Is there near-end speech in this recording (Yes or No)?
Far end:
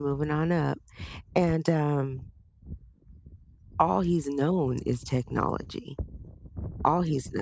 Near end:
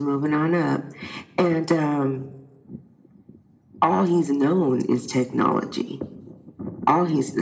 No